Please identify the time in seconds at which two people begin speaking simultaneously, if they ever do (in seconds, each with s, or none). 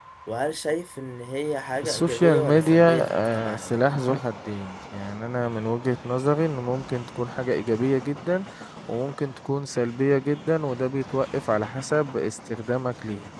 1.8 s